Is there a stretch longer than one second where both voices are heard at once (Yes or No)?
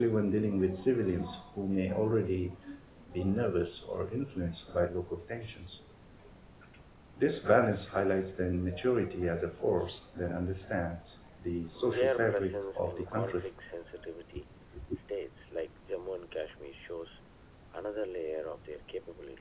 Yes